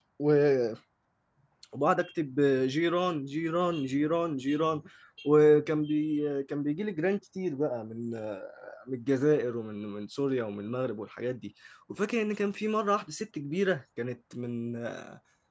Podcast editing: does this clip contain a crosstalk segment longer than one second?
No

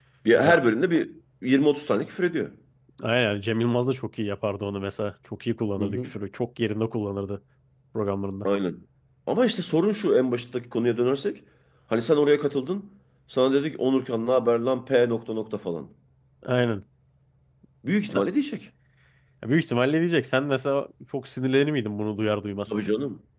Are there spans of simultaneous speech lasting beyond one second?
No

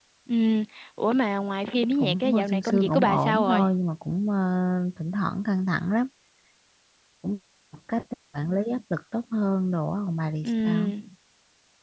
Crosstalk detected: Yes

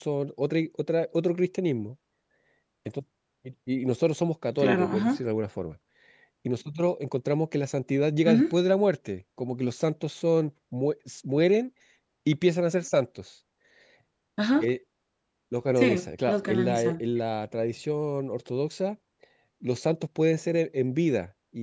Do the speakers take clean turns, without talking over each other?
No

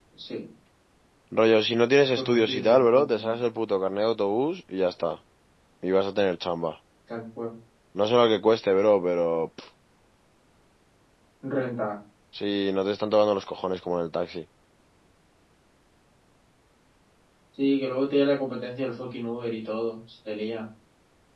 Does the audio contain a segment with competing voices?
Yes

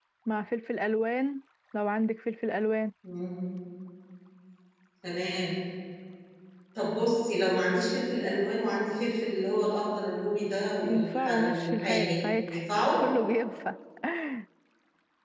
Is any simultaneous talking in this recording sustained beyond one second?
Yes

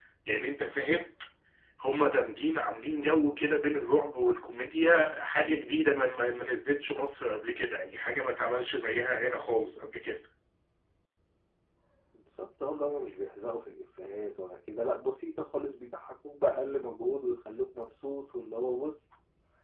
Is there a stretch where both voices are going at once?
No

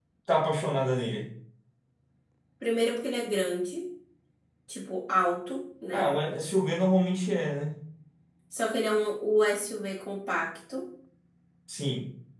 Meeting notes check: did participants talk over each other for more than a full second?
No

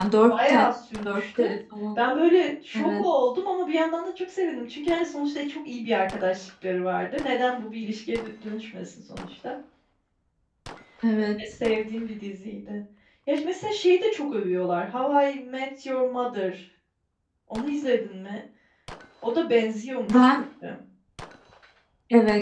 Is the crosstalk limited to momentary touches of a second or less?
Yes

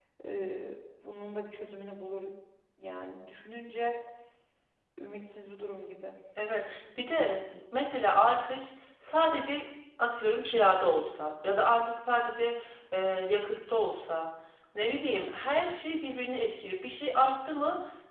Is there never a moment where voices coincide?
Yes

